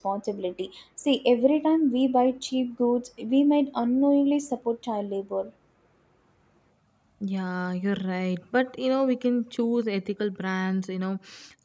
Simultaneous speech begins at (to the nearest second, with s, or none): none